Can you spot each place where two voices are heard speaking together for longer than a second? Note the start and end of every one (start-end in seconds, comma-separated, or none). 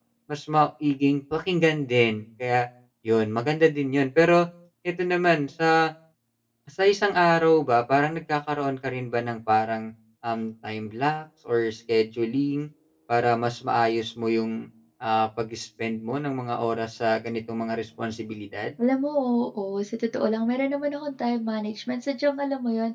none